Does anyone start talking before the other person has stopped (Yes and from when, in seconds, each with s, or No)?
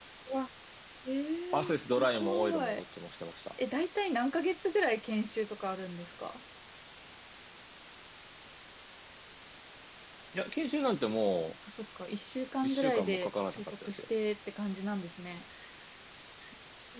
Yes, from 1.5 s